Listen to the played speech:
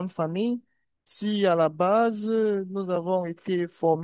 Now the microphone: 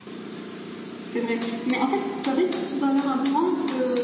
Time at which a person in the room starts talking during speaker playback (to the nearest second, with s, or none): 1 s